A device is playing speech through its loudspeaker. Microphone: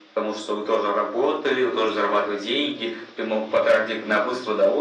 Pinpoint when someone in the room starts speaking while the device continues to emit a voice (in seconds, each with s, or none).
none